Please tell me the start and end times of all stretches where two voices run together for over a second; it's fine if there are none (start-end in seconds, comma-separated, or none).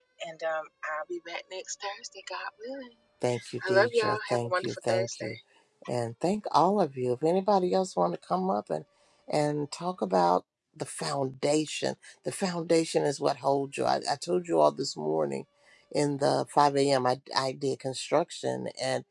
3.7-5.3